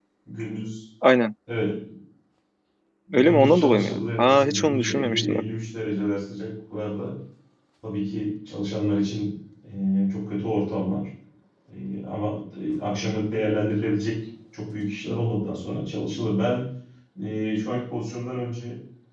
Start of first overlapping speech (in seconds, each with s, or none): 3.1 s